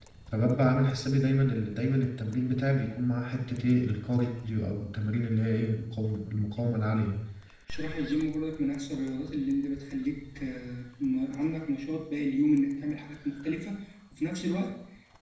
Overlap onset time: none

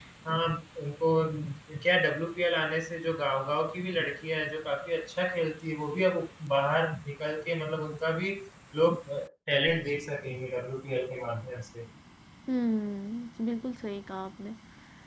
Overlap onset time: none

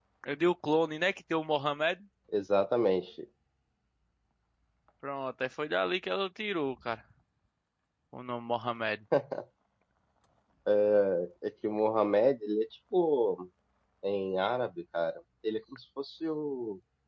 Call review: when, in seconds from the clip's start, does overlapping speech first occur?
none

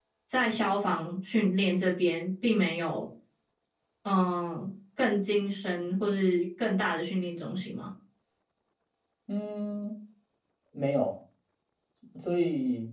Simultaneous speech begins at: none

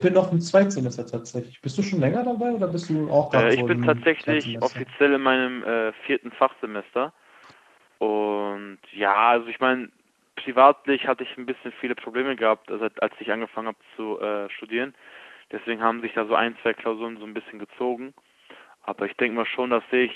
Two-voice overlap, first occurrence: 3.3 s

